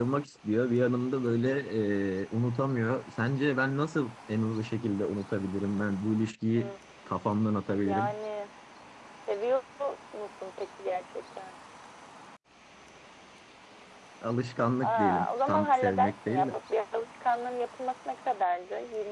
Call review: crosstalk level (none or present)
present